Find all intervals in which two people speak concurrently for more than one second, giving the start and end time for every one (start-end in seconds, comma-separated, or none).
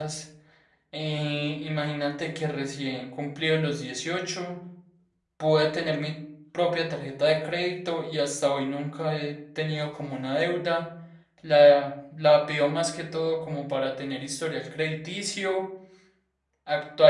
none